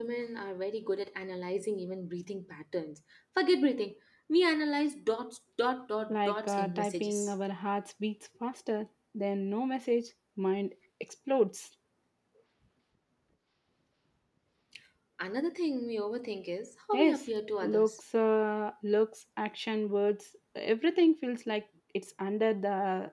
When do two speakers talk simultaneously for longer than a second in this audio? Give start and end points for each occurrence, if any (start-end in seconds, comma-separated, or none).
6.1-7.3